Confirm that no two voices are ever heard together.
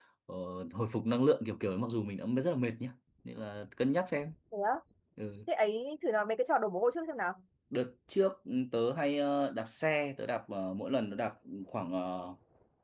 Yes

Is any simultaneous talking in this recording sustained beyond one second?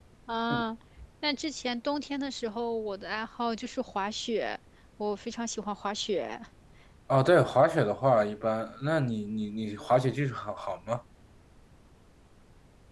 No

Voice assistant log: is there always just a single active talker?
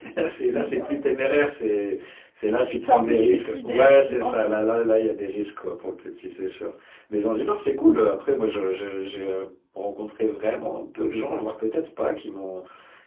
No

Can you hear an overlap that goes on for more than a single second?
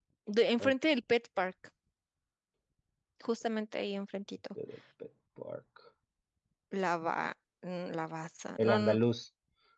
No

